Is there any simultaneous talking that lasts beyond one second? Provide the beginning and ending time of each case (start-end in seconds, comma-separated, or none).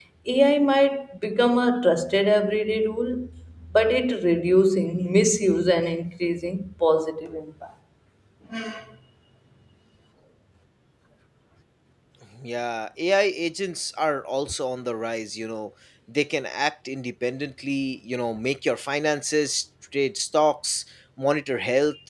none